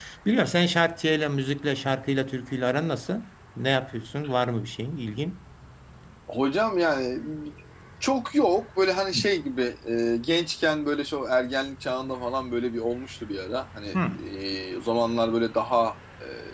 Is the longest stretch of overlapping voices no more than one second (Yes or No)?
Yes